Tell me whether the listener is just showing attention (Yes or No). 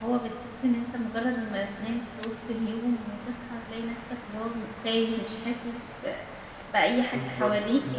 No